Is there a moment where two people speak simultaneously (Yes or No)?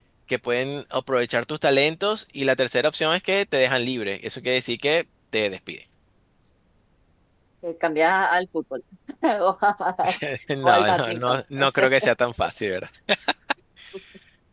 Yes